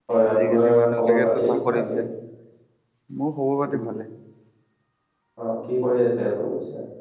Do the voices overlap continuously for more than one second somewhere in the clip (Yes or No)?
Yes